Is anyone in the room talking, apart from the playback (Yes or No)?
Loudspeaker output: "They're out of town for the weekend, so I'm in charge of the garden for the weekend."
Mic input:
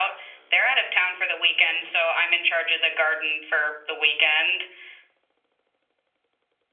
No